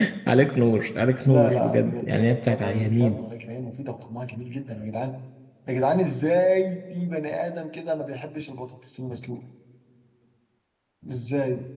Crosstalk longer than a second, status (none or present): present